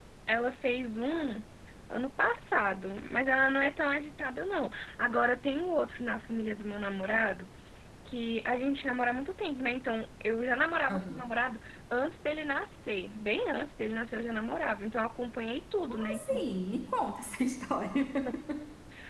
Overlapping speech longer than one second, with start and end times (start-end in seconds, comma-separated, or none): none